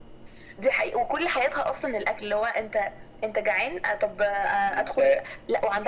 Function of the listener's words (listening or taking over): listening